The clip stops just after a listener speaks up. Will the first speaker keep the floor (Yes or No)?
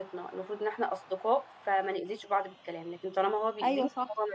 Yes